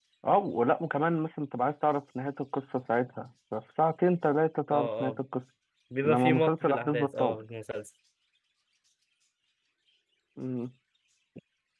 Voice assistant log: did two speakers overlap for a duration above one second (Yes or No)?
Yes